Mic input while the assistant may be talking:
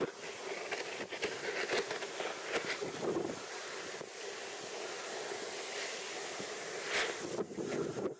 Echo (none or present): none